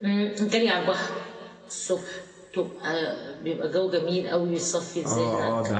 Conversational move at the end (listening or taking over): taking over